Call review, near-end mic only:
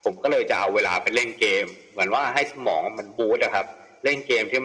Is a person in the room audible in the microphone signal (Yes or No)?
No